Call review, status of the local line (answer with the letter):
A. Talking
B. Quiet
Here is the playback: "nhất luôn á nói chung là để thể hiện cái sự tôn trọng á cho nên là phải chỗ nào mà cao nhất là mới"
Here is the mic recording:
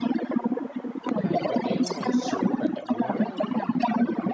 A